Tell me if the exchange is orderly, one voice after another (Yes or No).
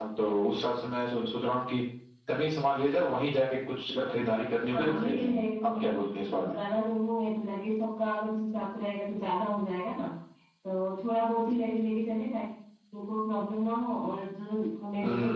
No